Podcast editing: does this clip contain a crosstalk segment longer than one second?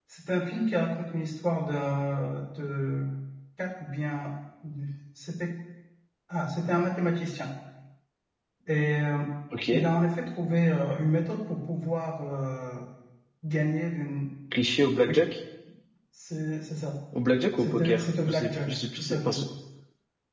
Yes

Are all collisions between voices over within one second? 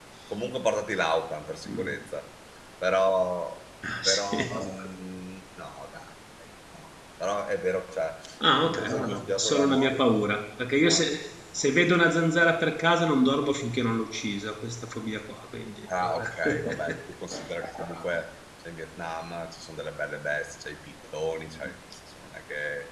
No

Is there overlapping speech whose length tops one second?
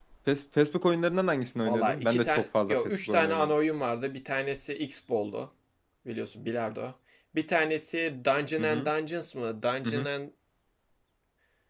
Yes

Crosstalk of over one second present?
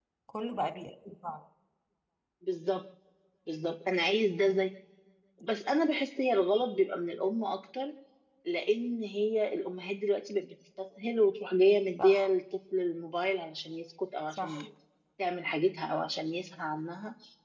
No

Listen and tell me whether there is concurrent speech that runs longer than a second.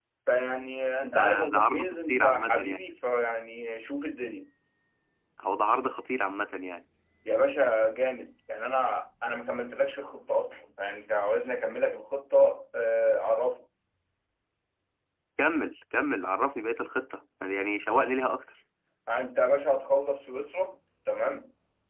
Yes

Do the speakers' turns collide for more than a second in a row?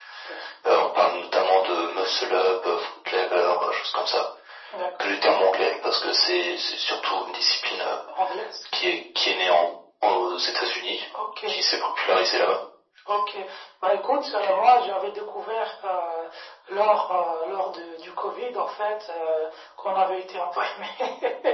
No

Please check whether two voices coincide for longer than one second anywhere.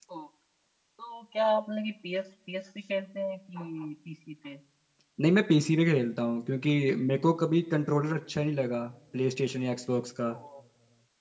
No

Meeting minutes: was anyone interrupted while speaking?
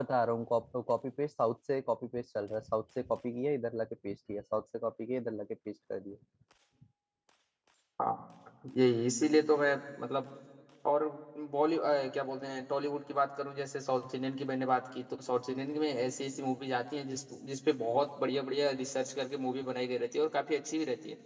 No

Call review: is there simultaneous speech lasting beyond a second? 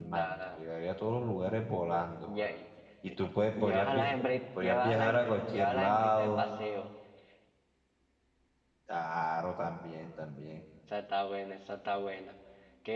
Yes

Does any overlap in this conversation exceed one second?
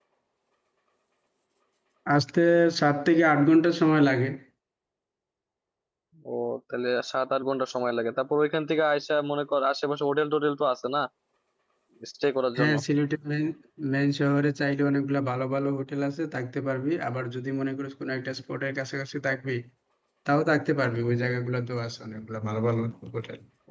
No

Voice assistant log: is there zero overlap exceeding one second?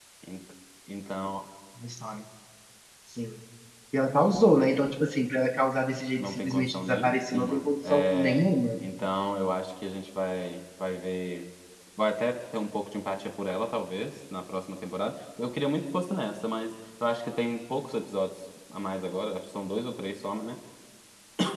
No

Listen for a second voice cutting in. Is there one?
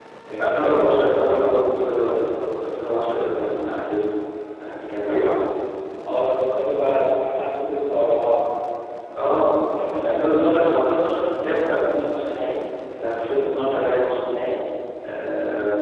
Yes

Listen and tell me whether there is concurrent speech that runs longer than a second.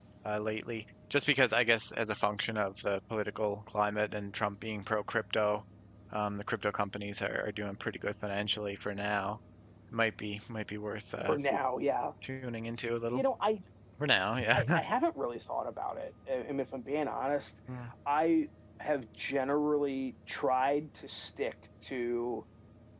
No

